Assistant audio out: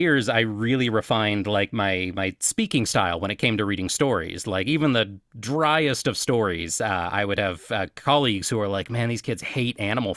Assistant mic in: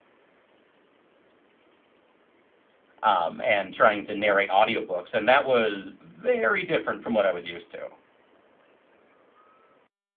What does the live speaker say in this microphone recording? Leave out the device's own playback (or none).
um, and trying to narrate audiobooks. And that was very different from what I was used to.